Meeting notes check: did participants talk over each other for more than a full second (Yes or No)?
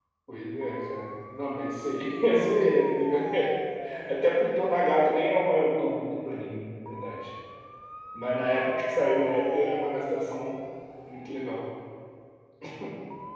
No